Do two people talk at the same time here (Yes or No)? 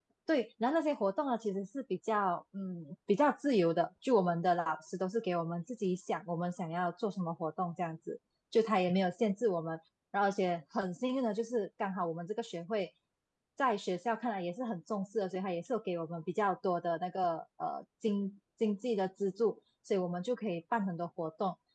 No